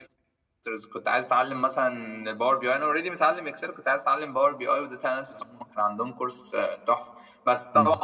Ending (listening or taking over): listening